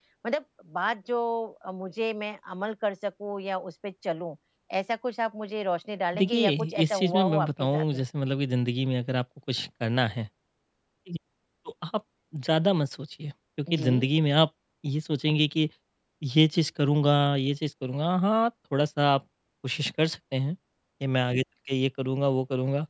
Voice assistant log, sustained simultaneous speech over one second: present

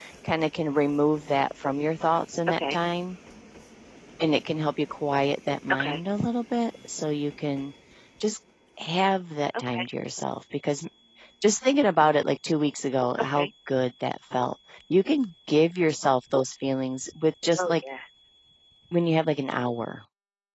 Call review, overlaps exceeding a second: none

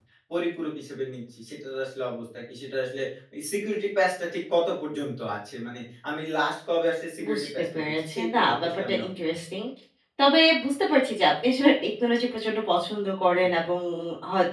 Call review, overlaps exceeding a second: present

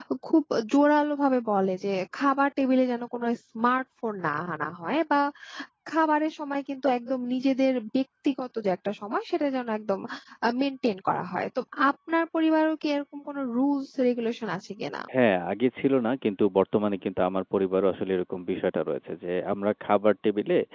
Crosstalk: none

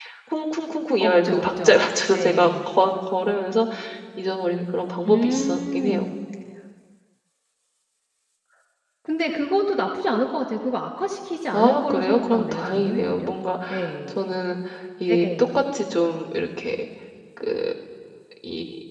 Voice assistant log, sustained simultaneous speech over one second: present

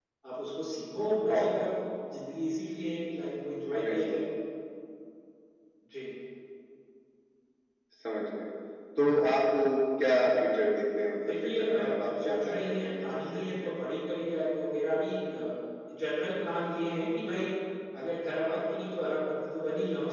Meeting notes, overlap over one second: present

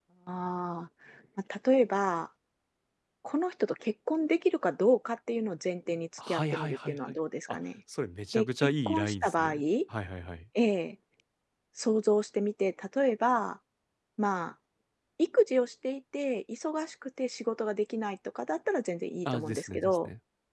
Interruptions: present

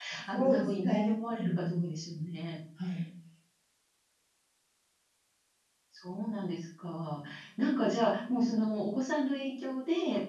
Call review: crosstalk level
present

